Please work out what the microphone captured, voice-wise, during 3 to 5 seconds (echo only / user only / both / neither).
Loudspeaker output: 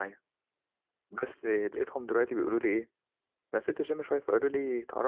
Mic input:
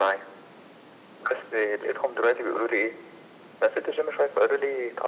echo only